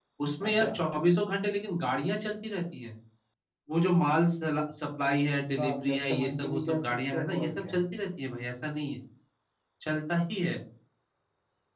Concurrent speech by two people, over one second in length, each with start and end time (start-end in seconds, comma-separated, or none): 5.6-7.8